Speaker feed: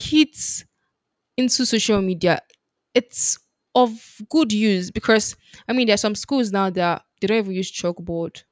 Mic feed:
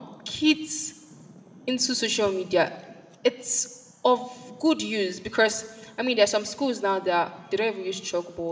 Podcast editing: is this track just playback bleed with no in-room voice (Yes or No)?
Yes